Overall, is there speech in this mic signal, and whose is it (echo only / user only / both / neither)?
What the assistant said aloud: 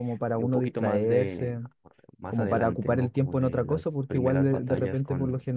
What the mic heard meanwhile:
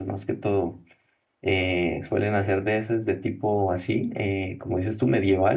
user only